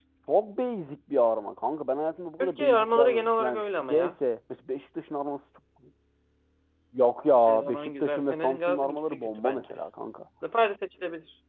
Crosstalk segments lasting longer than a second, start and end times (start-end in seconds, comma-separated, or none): 2.4-4.1, 7.5-9.6